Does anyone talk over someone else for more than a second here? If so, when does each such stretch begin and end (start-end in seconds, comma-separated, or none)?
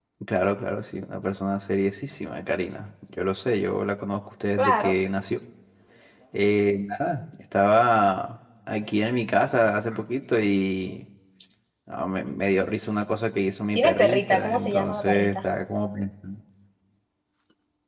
13.8-15.4